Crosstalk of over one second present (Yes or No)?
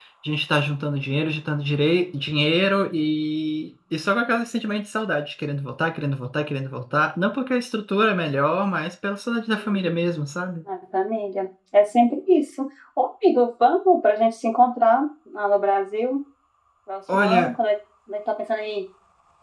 No